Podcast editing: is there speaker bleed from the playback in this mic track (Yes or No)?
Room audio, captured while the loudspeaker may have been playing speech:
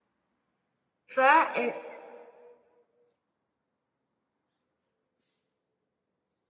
No